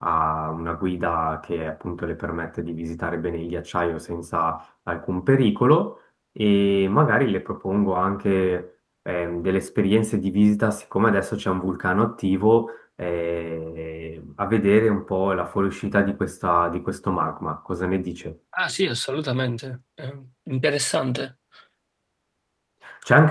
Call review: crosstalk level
none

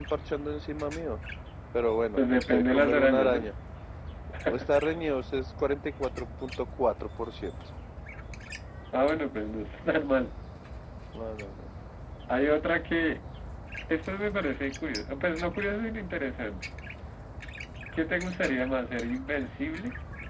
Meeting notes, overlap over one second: present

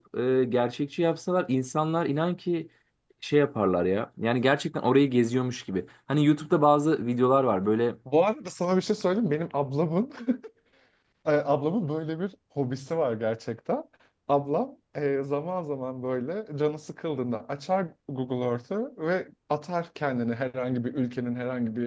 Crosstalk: none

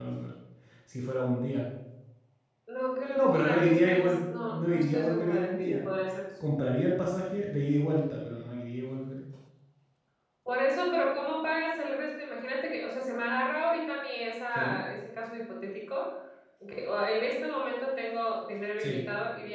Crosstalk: present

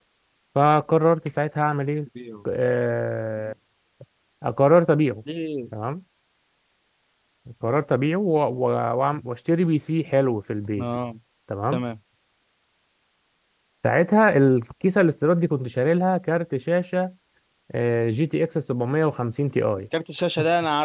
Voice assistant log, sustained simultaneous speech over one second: none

